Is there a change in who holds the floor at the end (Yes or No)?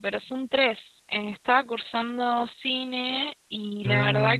No